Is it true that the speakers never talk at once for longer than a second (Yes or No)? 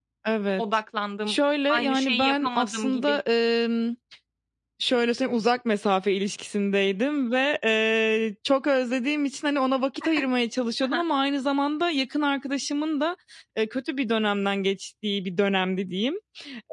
No